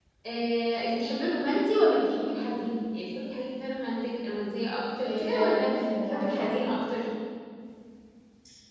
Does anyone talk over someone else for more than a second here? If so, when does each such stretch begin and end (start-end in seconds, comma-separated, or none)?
5.0-6.7